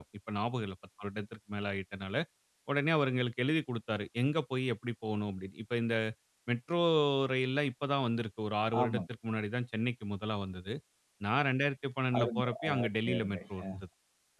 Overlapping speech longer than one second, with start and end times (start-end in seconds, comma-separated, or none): 12.2-13.6